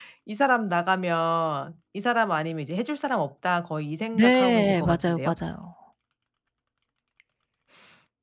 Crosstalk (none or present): present